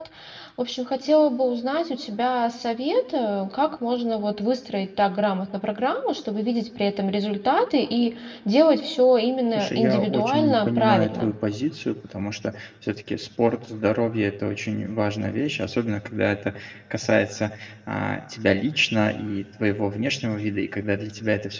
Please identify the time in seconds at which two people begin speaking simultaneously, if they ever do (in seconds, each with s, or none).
9.6 s